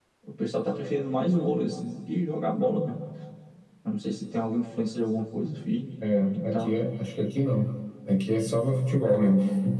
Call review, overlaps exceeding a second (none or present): none